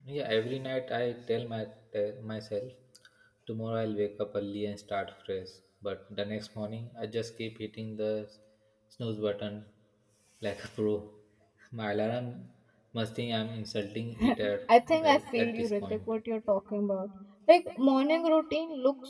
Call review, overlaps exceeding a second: present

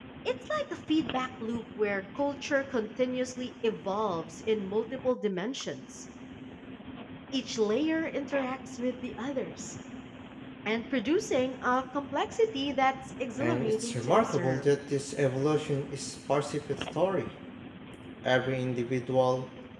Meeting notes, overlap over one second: present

